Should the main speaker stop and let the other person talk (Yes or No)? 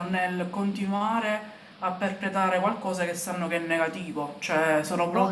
Yes